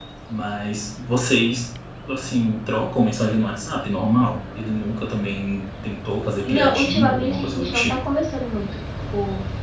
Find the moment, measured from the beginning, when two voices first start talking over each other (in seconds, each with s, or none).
6.4 s